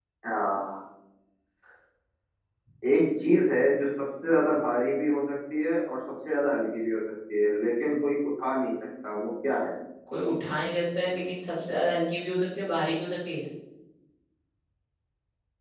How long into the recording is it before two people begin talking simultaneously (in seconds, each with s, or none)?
none